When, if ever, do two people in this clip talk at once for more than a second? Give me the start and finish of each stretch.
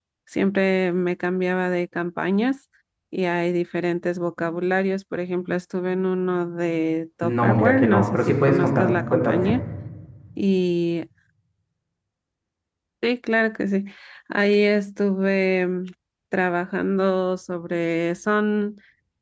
7.2-9.4

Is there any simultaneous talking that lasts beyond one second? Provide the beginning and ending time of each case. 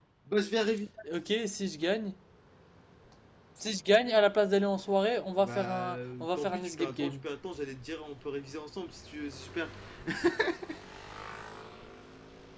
5.4-7.2

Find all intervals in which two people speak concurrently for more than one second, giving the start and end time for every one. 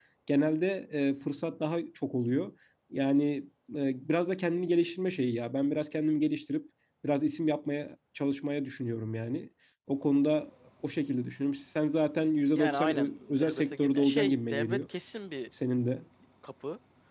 12.6-14.8

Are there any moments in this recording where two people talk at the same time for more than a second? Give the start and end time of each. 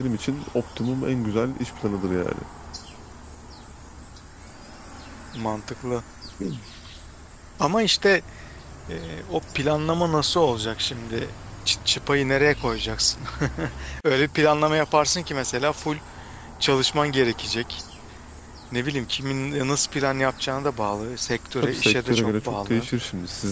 21.6-22.9

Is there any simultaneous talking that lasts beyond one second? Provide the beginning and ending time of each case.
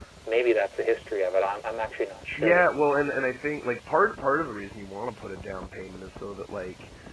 none

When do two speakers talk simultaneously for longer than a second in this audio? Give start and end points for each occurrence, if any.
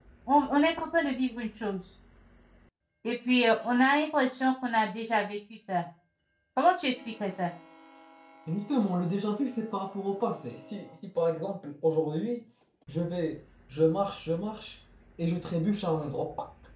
none

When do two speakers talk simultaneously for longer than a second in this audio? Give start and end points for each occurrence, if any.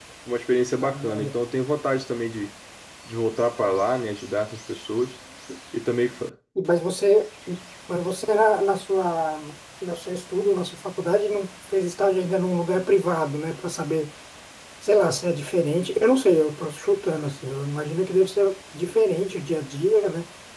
none

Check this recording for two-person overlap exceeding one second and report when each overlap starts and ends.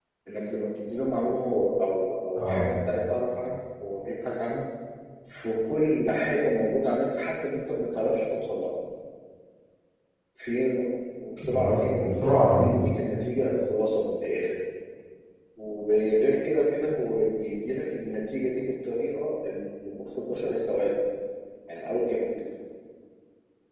11.4-12.7

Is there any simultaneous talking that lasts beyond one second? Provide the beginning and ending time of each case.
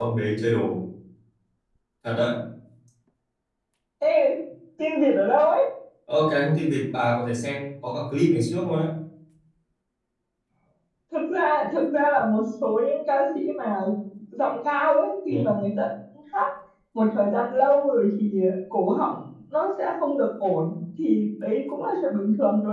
none

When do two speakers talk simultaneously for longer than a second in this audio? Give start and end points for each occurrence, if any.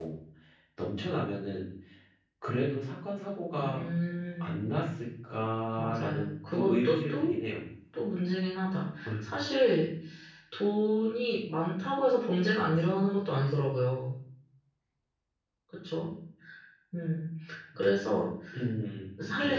5.8-7.3

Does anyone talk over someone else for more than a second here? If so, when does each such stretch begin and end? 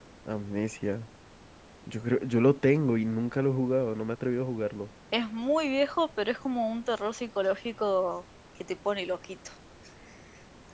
none

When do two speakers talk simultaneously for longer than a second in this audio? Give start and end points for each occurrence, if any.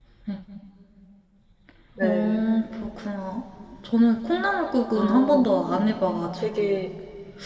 none

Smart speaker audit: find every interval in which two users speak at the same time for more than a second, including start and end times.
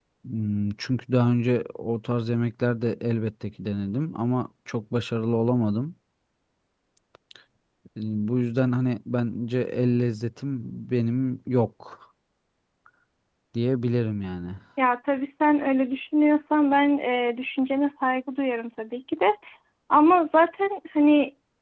none

